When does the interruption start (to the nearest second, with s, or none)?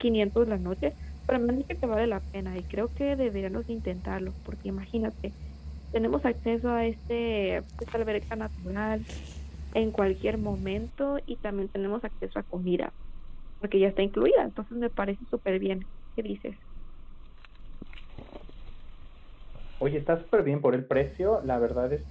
none